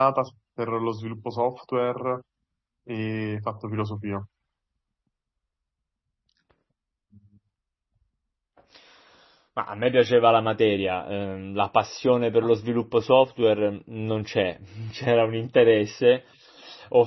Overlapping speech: No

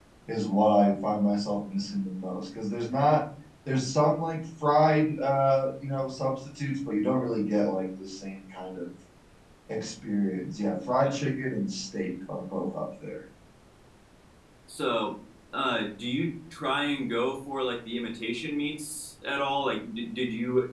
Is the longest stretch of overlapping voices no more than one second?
Yes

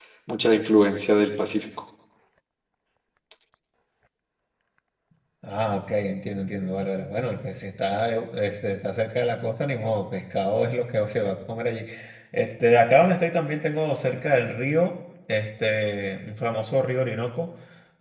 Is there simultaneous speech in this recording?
No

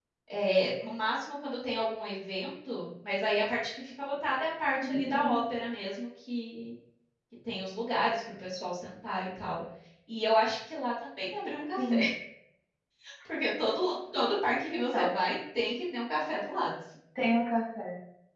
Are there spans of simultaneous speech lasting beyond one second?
No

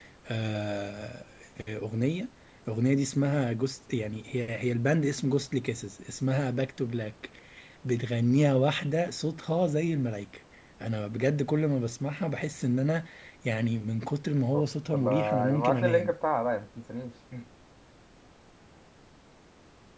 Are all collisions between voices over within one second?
No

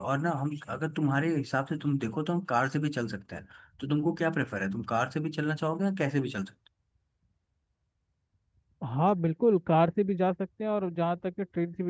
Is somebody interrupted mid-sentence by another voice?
No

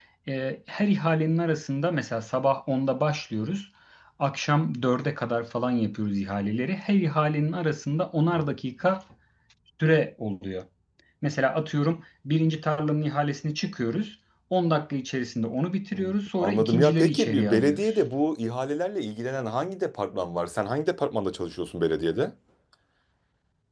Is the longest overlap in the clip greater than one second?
Yes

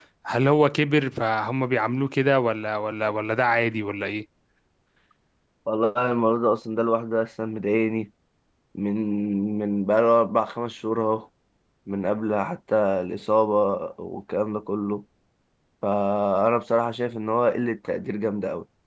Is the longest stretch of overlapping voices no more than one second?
Yes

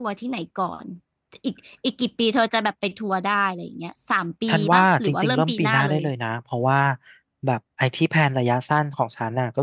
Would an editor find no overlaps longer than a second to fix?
No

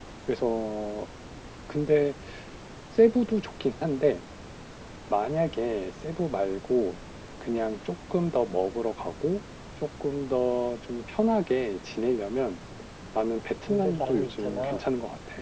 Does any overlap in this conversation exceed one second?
Yes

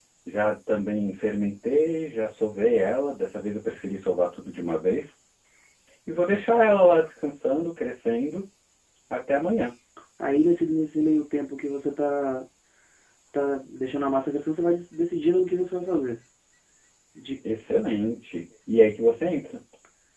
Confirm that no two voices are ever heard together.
Yes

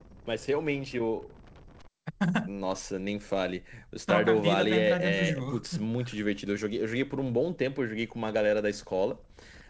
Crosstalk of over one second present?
Yes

